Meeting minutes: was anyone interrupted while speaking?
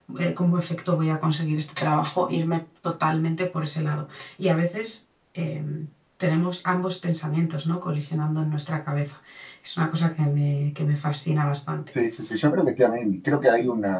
No

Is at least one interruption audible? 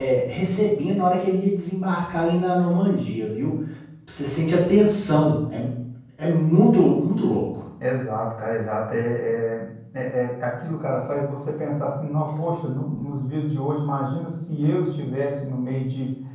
No

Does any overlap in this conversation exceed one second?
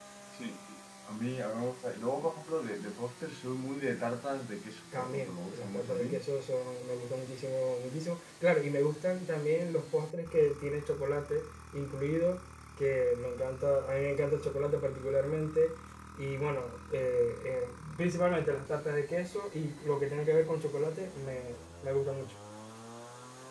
Yes, from 4.9 s

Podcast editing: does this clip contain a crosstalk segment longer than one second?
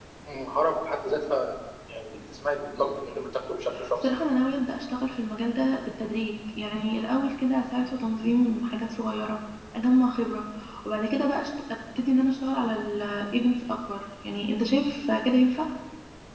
No

